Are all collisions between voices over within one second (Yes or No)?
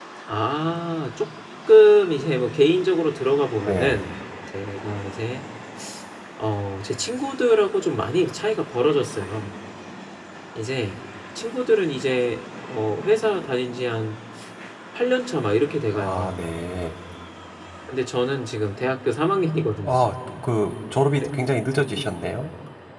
Yes